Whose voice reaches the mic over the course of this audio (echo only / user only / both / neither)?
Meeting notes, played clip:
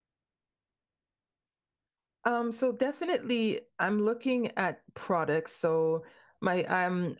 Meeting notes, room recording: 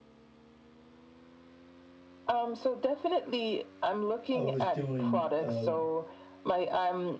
both